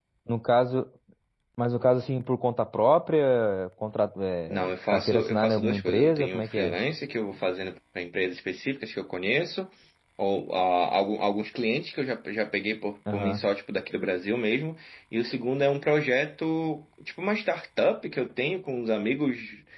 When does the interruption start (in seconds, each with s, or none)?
4.5 s